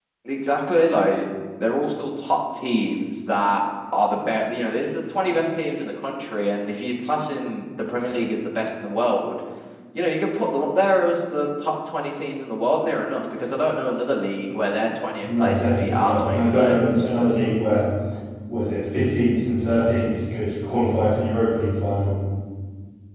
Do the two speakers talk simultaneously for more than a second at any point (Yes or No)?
Yes